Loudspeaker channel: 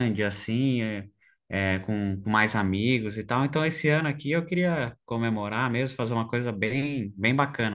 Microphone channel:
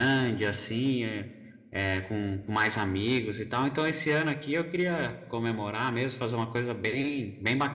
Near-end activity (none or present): none